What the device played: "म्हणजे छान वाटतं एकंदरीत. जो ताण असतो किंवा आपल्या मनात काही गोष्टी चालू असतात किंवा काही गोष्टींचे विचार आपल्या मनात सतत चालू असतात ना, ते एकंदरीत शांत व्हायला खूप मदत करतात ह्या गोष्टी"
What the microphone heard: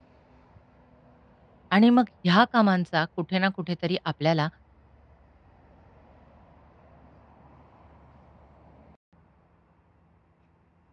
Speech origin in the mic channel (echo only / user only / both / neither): user only